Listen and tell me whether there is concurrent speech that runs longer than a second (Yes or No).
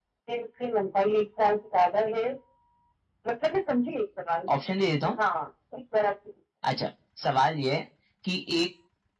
No